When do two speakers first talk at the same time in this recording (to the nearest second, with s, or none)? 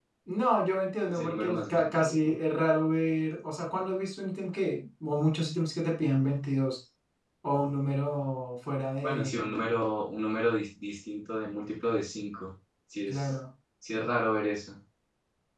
1 s